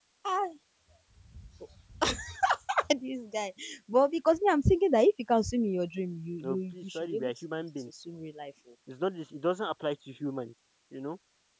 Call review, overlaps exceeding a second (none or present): present